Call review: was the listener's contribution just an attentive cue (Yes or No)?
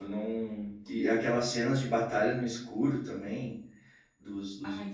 Yes